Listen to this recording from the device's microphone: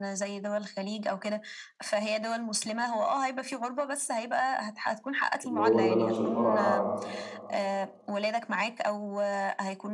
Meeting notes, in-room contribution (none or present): present